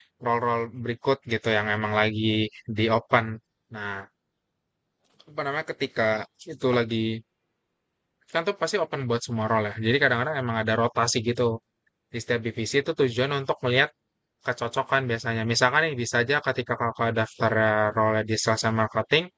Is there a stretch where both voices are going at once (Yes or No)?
No